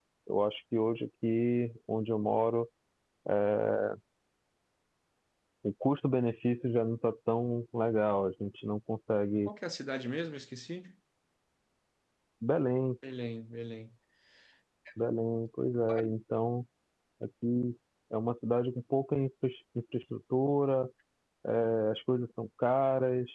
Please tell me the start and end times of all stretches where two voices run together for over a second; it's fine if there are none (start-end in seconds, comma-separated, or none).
none